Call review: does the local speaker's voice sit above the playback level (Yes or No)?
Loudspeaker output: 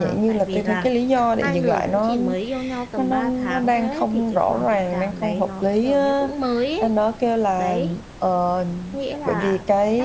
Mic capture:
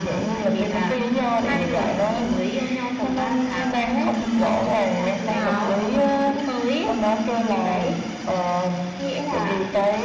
No